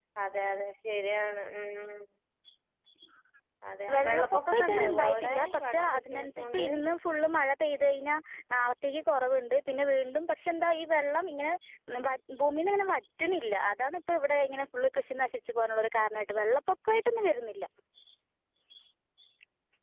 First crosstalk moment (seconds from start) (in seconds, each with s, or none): 3.9 s